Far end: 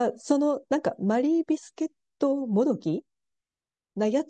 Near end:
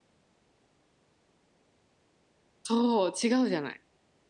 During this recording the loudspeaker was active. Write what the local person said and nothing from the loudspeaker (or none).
そう、違うじゃない。